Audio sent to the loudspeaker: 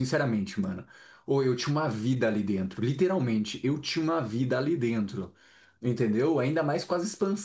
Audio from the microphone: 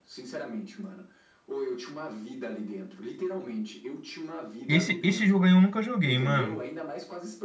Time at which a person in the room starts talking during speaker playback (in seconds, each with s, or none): 4.7 s